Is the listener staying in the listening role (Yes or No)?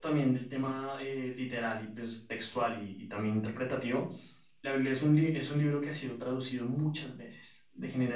Yes